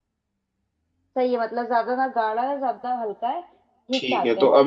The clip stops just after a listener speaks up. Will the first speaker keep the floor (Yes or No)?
No